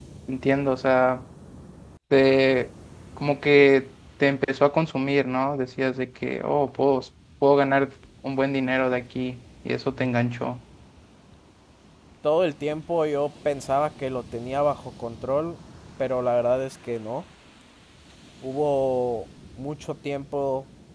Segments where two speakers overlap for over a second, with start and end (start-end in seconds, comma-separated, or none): none